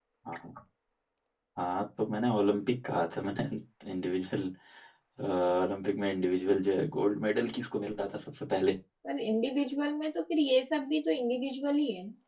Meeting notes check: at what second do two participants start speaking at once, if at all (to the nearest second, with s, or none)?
none